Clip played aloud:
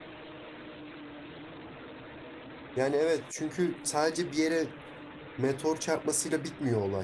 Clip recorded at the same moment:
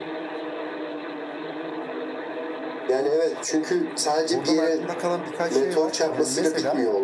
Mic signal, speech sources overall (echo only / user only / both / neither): both